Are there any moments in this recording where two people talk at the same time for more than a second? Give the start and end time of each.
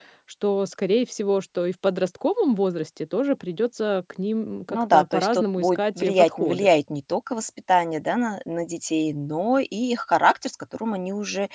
4.7-6.7

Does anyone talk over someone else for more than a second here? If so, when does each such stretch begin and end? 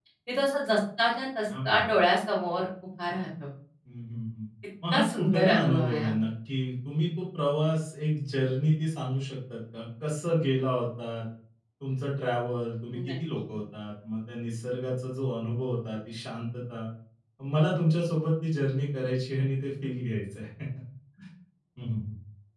4.9-6.1

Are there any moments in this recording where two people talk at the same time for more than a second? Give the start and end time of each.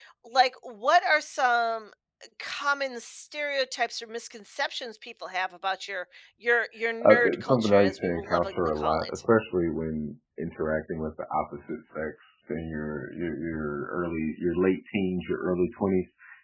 7.0-9.1

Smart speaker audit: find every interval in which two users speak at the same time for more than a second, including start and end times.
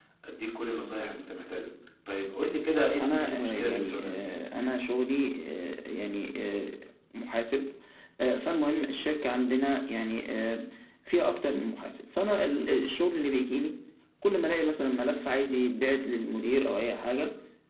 3.0-4.3

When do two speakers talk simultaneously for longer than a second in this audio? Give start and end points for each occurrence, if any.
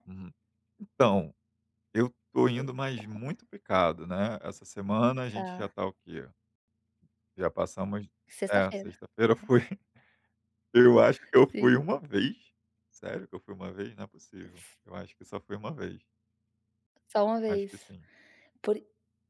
none

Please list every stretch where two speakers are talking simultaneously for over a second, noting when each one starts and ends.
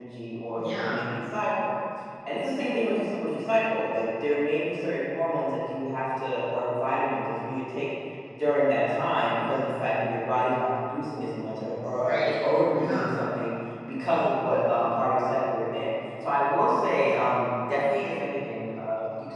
12.0-13.2

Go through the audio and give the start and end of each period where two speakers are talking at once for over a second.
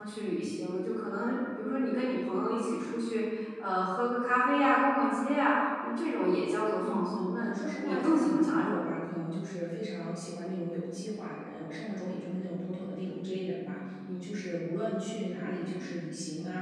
6.8-8.9

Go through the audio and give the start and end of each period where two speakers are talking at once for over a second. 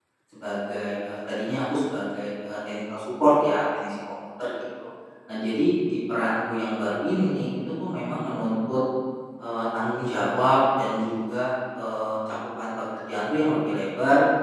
none

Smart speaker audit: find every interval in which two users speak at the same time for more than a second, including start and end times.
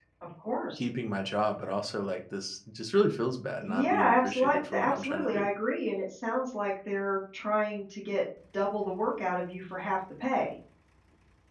3.6-5.5

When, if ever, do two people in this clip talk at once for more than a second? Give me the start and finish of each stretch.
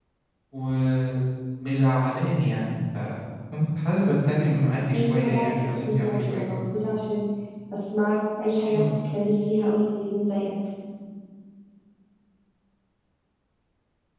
4.9-6.6

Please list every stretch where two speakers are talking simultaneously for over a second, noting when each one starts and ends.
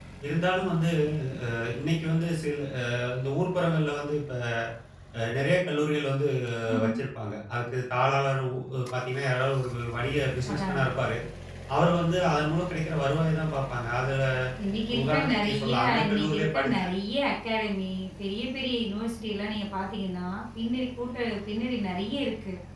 15.0-16.7

